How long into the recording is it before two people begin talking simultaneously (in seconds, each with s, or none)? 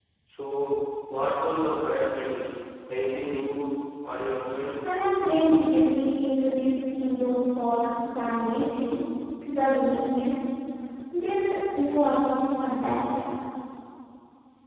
none